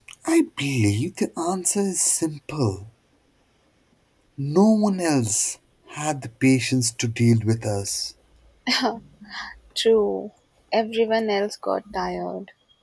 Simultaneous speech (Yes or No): No